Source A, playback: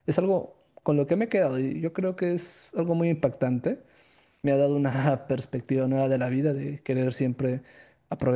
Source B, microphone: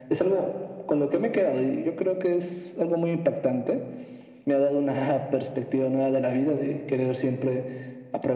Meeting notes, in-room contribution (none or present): none